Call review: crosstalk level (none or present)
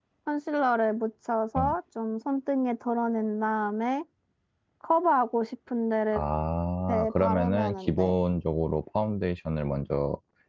present